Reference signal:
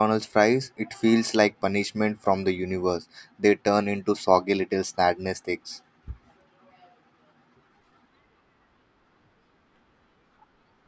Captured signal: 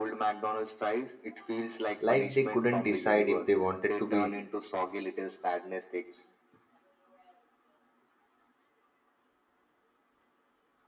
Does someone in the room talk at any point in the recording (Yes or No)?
Yes